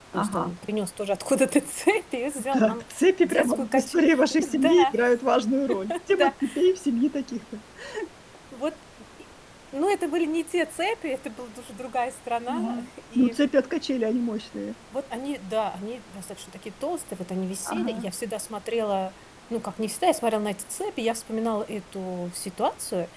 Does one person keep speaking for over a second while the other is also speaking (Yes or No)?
Yes